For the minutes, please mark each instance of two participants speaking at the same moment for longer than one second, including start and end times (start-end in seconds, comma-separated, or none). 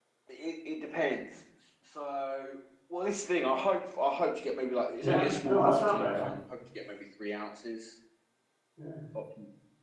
5.0-6.3